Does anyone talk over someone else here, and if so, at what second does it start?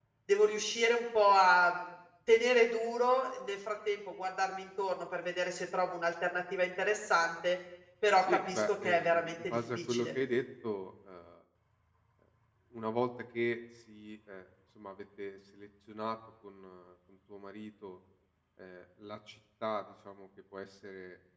8.2 s

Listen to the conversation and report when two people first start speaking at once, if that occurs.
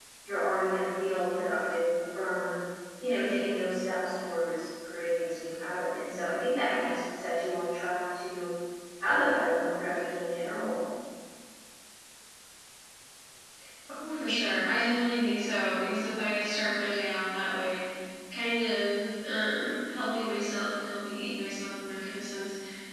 none

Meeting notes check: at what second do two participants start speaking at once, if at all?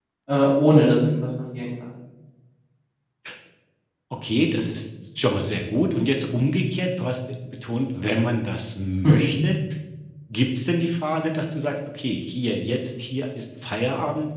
none

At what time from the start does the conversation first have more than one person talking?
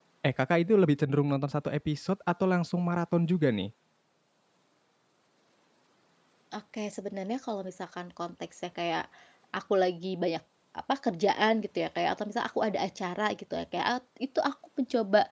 none

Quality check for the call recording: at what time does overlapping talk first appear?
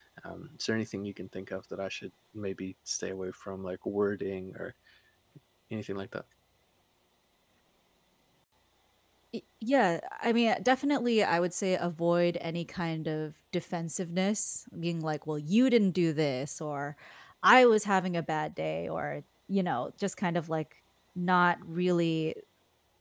none

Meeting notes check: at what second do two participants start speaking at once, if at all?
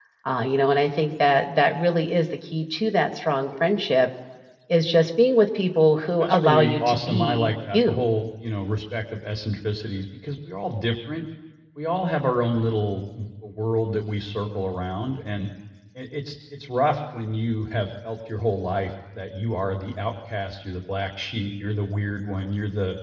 6.2 s

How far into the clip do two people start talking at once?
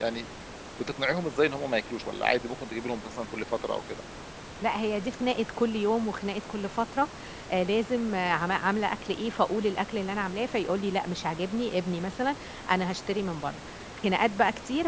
none

